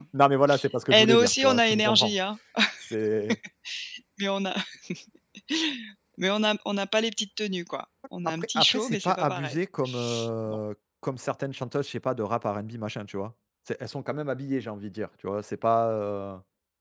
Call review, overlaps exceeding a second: present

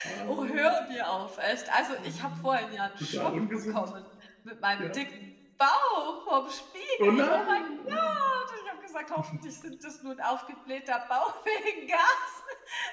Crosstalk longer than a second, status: present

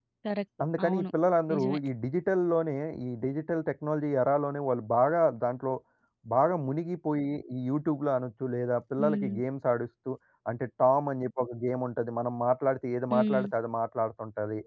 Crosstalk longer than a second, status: none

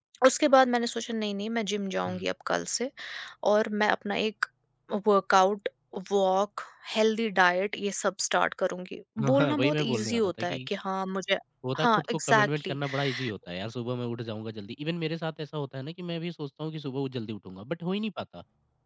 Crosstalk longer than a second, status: present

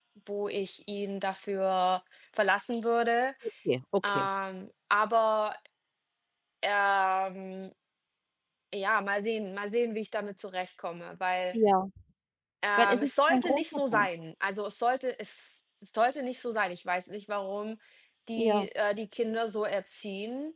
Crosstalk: present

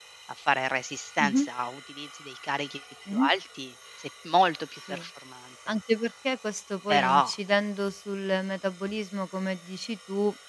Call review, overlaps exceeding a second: none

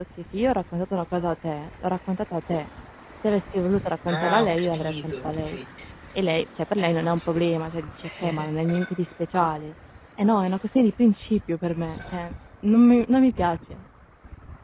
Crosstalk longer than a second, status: present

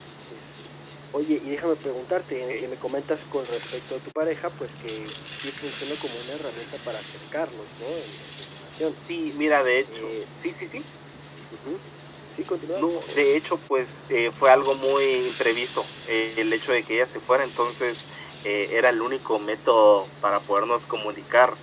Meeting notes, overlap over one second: none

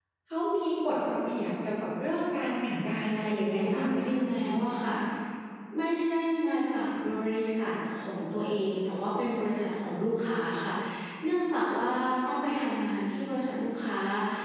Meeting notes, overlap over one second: present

